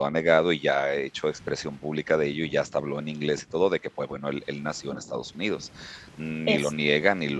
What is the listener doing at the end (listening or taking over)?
listening